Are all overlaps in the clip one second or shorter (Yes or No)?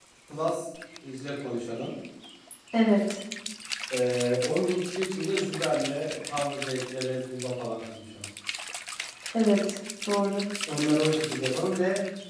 Yes